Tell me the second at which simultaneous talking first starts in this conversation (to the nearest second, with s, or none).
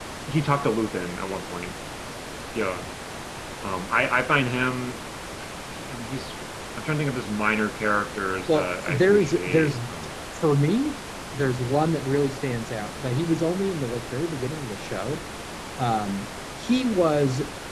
8 s